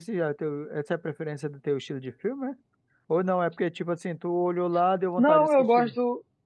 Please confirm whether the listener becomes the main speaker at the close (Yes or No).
Yes